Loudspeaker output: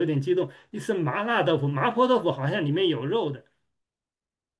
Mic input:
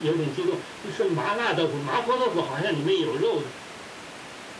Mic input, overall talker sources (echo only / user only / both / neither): echo only